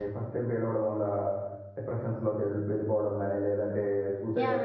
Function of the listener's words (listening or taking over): taking over